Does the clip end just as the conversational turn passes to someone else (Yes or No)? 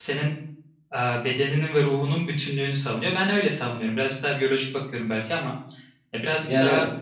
Yes